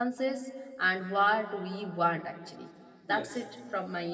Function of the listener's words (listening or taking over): listening